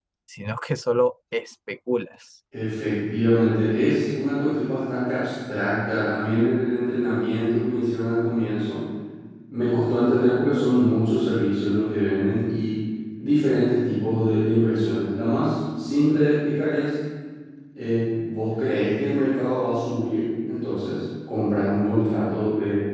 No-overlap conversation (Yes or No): Yes